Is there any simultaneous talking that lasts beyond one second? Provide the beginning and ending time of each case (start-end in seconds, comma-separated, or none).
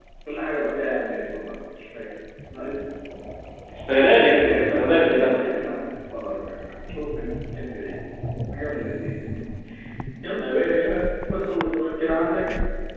3.8-5.4